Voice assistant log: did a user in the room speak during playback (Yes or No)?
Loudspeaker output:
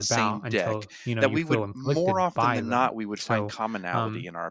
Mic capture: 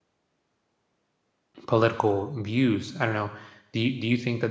Yes